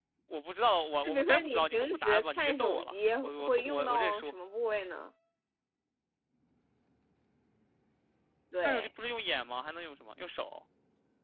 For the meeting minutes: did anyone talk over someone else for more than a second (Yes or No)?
Yes